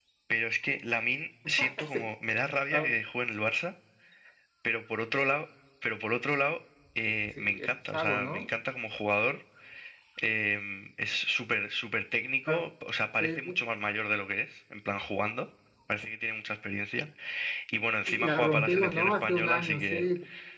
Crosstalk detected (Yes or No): Yes